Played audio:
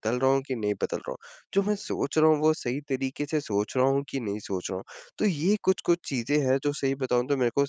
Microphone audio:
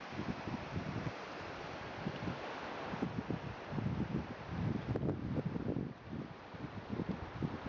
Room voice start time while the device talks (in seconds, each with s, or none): none